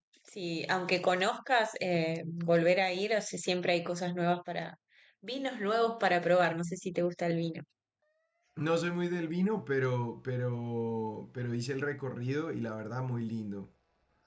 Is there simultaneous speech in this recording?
No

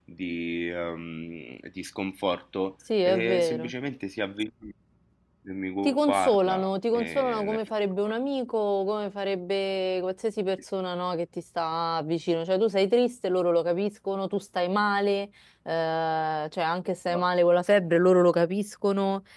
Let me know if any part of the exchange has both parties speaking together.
Yes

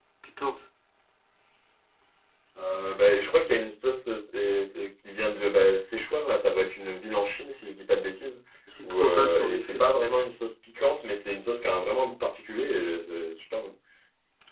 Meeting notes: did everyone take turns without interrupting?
No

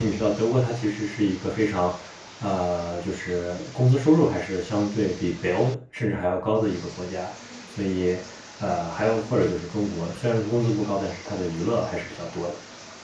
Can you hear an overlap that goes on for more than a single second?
No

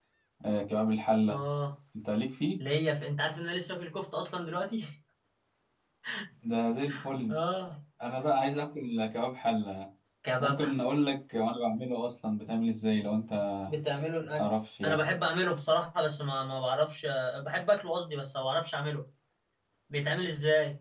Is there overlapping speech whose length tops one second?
No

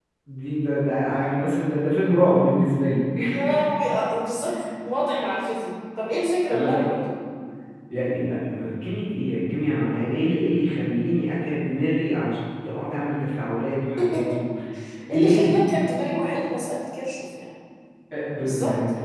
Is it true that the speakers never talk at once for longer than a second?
Yes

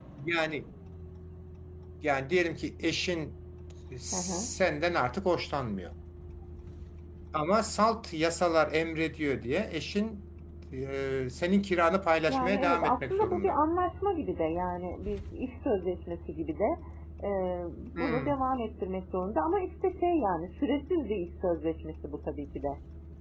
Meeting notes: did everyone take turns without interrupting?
No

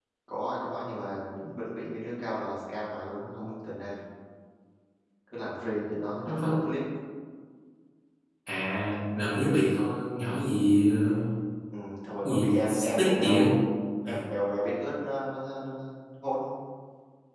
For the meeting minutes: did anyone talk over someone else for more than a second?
Yes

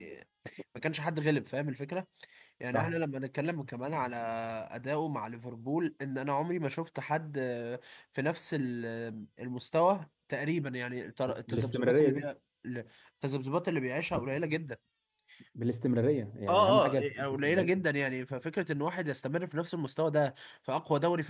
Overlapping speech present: Yes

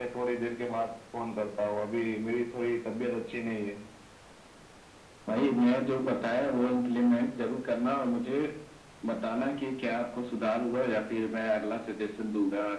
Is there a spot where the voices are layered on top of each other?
No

